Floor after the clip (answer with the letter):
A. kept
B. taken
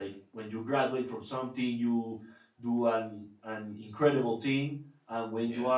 A